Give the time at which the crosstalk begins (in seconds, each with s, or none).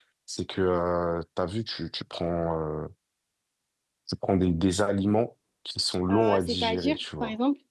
6.1 s